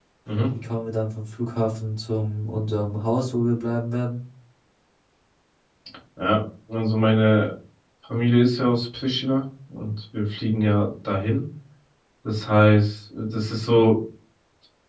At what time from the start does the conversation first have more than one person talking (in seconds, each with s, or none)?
none